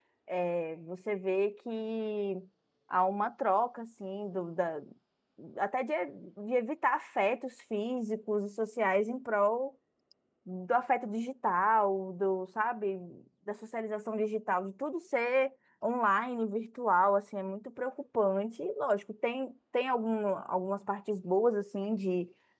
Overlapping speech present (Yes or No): No